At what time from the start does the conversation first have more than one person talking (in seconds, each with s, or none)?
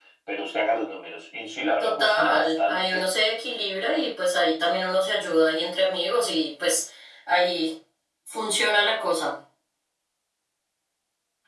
1.8 s